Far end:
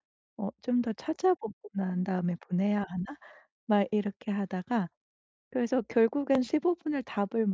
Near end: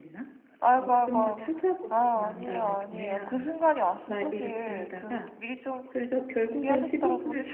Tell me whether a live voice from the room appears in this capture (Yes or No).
Yes